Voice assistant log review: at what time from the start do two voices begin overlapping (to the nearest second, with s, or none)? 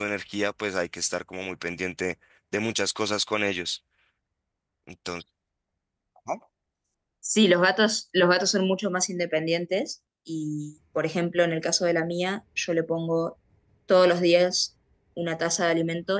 none